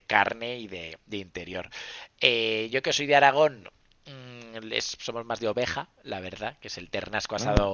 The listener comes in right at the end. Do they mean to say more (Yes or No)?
No